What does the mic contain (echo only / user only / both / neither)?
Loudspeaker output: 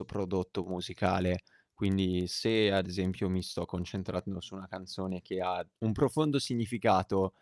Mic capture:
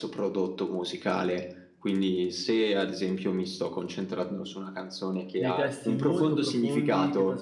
both